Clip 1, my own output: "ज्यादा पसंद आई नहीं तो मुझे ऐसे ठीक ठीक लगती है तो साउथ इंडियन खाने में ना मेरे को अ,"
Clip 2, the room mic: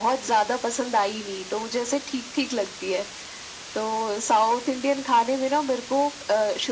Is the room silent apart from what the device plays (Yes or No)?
Yes